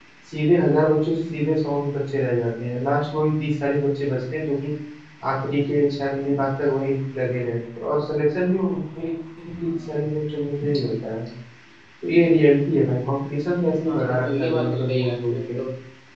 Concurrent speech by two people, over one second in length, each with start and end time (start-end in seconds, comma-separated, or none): 13.8-15.6